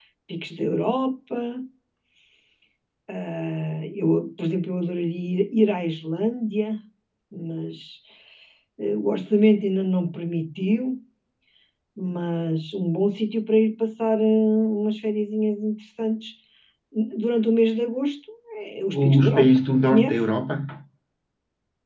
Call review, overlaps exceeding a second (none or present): present